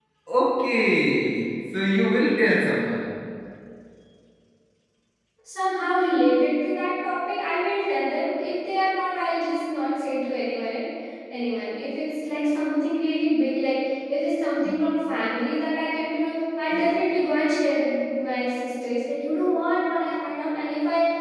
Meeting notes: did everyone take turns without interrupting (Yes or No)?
Yes